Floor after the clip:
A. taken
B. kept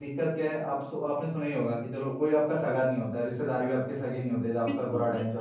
A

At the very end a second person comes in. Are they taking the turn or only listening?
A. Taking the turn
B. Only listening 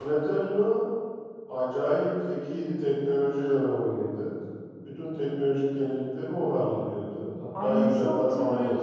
A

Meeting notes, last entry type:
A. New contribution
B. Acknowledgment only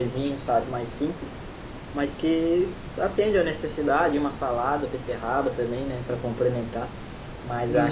A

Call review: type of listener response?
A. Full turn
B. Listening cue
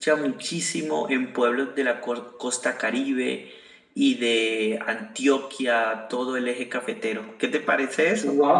A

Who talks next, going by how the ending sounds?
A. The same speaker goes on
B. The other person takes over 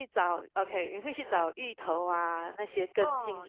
B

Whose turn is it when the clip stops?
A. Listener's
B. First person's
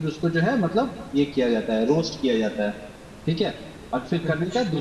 B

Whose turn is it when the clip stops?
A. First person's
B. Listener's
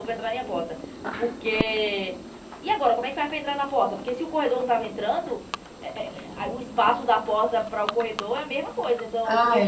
B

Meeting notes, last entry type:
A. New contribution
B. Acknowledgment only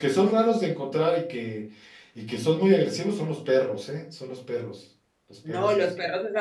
A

